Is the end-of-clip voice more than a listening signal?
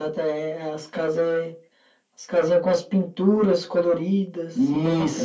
Yes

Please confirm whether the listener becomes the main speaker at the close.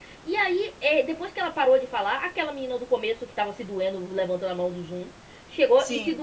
No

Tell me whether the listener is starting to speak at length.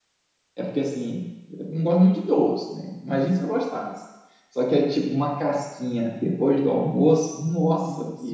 Yes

